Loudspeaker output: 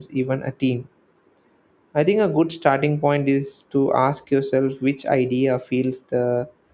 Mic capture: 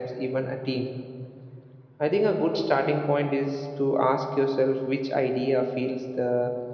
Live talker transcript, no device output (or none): none